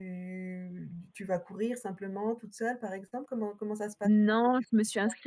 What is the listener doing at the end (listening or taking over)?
taking over